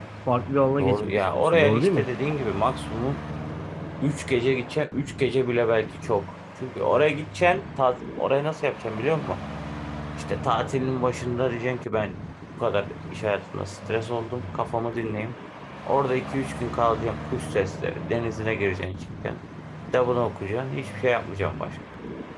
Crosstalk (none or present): present